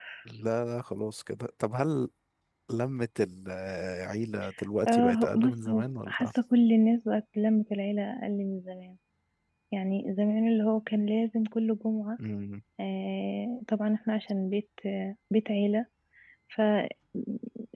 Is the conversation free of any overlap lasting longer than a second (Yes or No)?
No